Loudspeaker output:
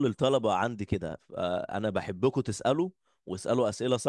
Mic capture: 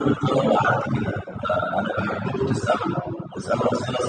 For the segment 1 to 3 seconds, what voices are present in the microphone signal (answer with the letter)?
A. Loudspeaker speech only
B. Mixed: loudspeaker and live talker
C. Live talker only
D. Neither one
A